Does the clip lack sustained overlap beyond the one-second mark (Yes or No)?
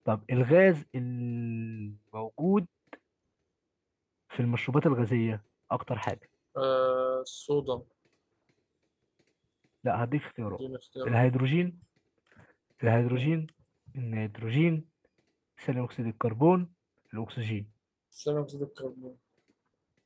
Yes